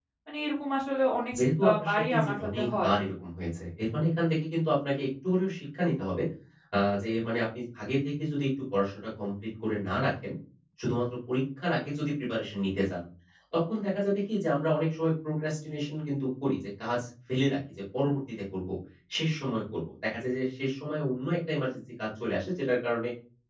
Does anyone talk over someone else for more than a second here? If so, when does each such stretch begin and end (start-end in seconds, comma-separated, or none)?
1.6-2.9